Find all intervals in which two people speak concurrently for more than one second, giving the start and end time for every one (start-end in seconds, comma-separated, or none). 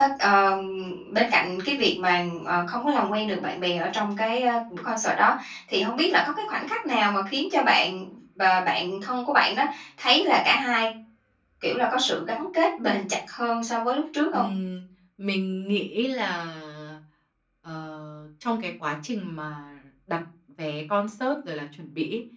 none